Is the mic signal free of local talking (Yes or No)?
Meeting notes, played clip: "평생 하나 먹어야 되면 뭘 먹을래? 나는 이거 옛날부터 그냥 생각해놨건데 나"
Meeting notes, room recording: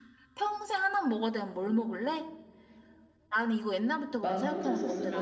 No